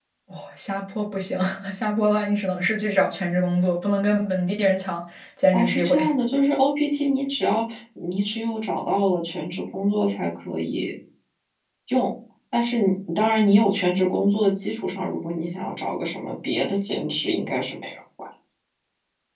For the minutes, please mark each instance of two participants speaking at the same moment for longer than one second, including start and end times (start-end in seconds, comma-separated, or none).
none